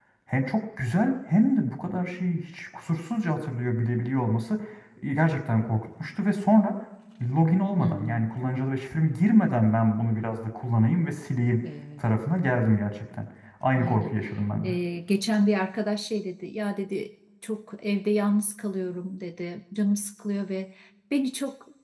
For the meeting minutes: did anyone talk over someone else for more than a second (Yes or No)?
No